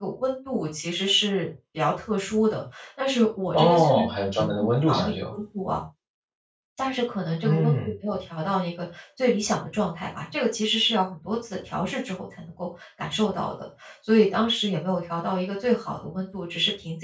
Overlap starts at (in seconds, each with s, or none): 3.5 s